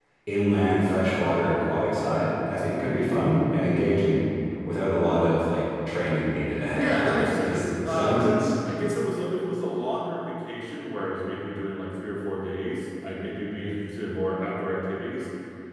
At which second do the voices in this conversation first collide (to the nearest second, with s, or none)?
7 s